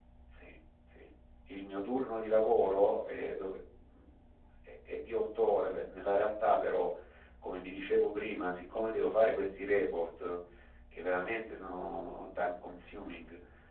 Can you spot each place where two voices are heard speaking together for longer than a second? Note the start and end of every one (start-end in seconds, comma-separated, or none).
none